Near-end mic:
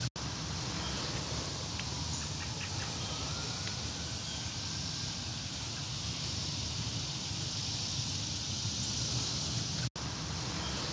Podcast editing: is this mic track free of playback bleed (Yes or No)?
Yes